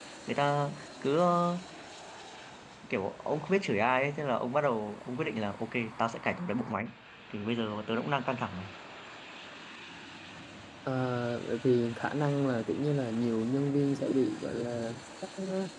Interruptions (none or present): none